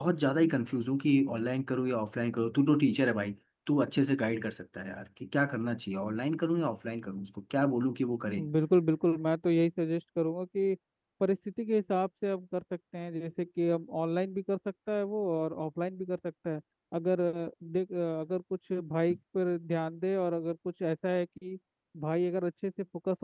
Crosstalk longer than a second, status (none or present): none